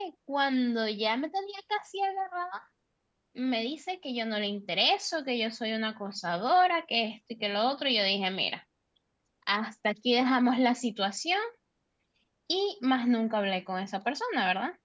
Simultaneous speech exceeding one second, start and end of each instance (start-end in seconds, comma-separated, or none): none